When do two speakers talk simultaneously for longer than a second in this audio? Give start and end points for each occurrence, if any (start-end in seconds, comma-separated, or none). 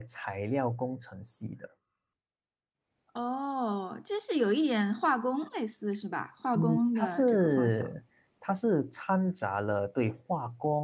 6.5-7.8